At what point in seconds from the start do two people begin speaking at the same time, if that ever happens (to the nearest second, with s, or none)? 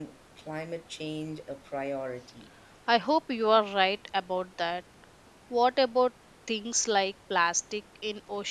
none